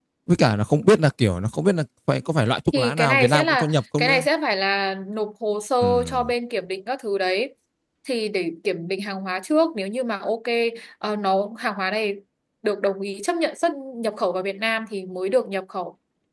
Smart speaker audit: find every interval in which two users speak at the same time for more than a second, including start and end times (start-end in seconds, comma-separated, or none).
2.7-4.2